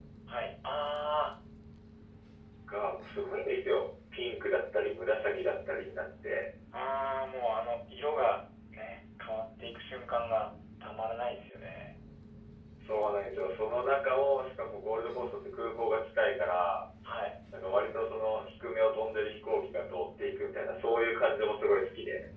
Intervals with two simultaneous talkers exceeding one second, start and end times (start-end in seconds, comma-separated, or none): none